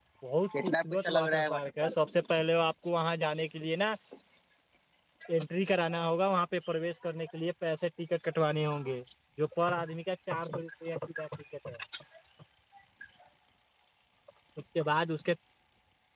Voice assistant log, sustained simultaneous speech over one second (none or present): present